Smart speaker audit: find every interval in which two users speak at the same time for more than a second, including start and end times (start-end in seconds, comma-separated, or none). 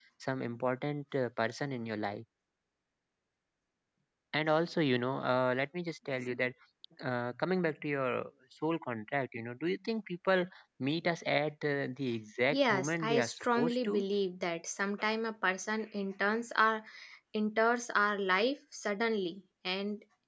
12.5-14.1